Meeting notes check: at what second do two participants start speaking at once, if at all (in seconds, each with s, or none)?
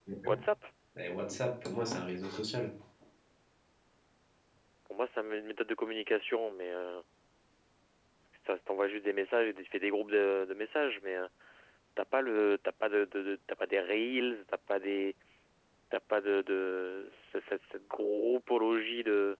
none